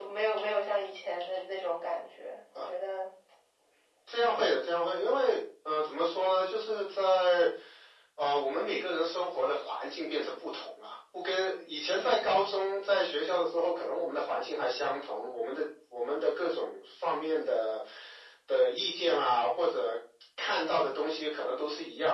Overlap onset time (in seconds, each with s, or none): none